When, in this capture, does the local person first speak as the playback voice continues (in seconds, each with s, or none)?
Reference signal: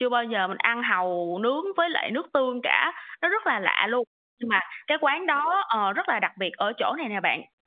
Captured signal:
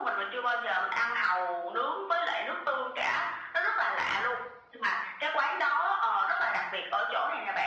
none